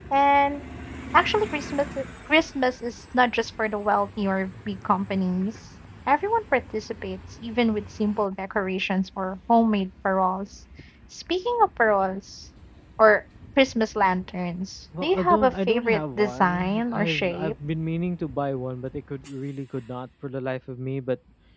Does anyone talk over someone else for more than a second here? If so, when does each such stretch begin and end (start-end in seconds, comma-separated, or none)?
15.0-17.5